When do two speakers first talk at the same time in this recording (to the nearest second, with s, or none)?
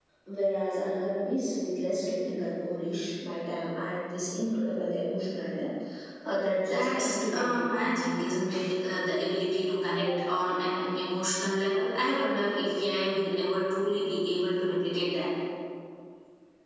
7 s